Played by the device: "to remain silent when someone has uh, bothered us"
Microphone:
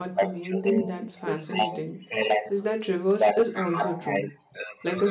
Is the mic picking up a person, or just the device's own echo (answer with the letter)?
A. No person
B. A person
B